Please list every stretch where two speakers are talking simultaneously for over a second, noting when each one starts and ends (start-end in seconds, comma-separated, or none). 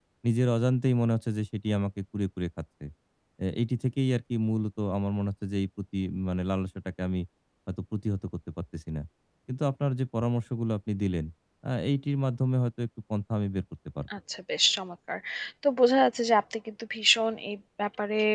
none